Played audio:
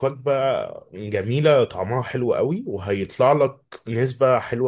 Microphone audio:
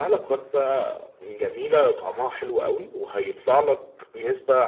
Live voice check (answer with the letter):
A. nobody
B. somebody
A